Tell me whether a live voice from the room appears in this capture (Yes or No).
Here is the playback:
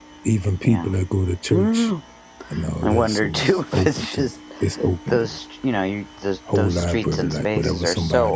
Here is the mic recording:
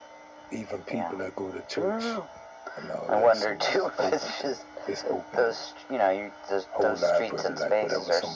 No